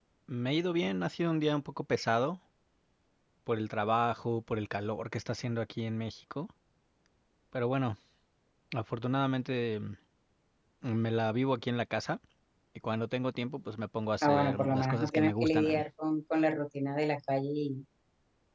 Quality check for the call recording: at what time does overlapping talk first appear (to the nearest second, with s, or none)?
14 s